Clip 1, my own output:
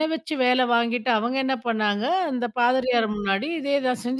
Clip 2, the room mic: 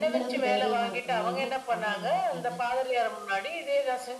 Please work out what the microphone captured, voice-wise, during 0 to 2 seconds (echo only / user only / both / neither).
both